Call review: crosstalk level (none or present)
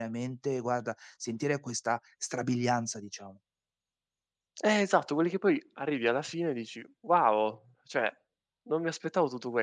none